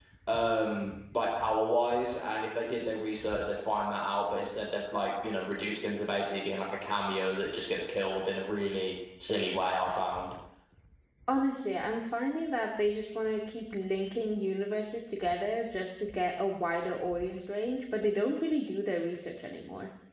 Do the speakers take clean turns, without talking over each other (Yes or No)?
Yes